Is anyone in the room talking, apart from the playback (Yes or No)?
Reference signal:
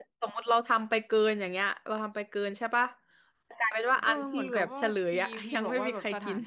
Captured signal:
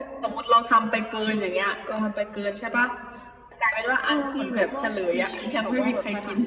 No